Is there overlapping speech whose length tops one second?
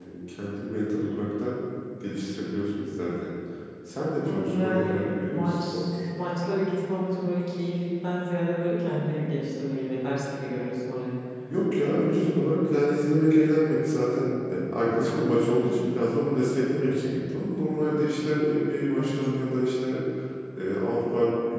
Yes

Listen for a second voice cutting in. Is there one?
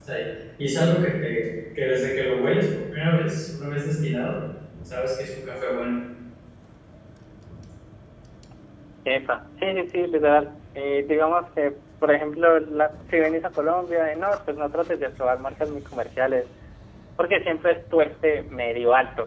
No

